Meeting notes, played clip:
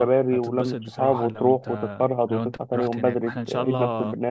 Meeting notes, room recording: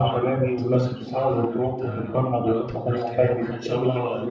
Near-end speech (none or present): none